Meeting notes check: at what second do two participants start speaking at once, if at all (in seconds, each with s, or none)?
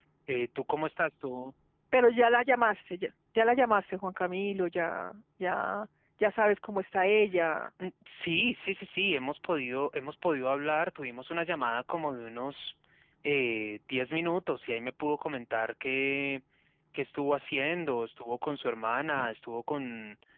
none